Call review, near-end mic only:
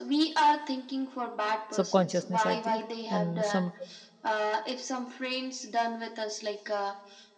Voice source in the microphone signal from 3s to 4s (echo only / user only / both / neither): both